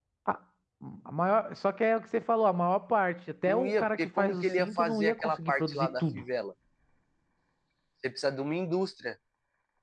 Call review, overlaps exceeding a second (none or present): present